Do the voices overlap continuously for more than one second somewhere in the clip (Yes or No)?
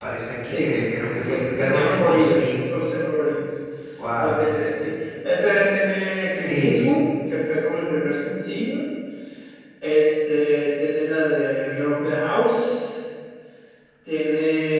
Yes